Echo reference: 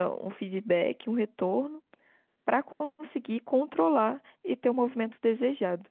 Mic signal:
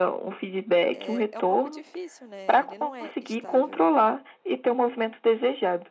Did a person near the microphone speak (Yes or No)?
Yes